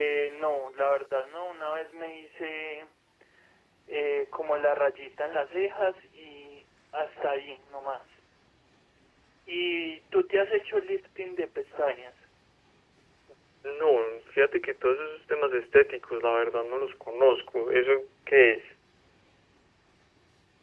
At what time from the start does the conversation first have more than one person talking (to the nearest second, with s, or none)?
none